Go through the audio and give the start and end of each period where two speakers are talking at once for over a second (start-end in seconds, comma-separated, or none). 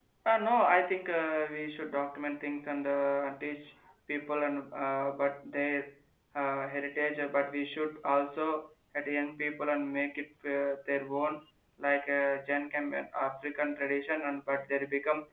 none